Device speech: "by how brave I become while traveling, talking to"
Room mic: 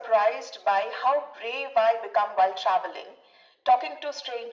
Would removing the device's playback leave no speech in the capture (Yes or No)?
Yes